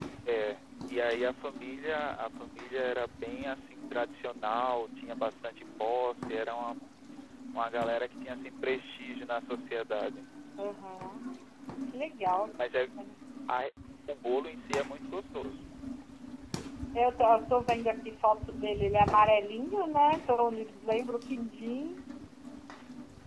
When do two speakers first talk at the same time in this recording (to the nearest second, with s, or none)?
none